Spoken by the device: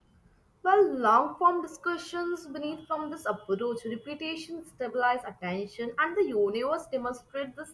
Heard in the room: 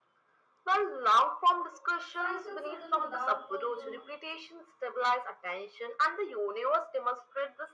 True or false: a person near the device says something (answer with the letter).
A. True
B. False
A